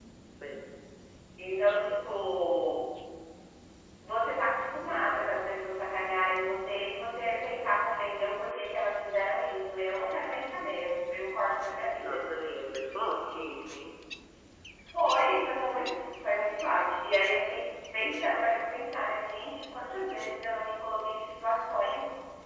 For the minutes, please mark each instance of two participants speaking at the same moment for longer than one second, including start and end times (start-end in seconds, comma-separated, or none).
none